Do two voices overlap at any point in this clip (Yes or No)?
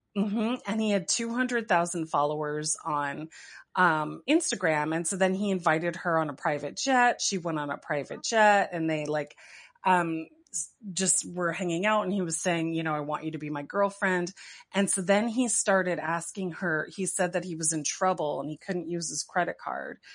No